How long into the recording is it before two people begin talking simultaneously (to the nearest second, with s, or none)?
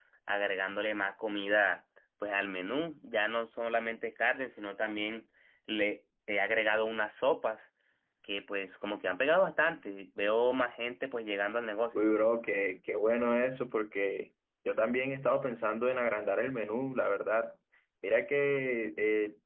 none